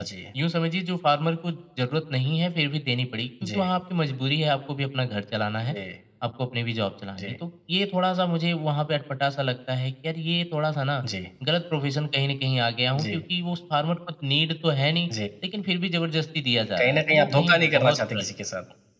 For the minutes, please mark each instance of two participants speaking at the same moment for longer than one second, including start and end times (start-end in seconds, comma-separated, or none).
16.8-18.3